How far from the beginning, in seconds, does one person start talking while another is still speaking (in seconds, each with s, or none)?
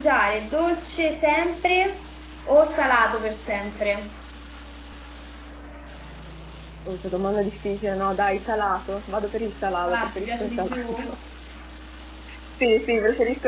9.8 s